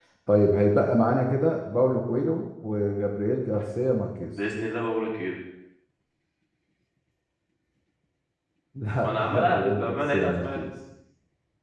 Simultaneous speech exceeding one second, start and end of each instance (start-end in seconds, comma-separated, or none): 9.0-10.7